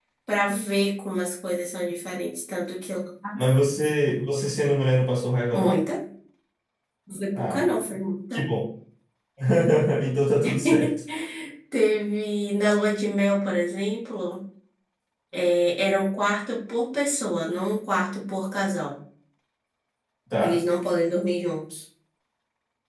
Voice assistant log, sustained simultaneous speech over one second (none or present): none